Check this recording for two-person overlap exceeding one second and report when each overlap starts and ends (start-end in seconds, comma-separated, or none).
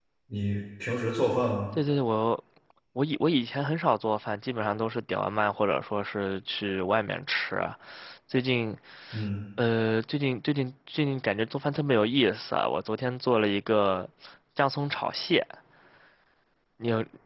none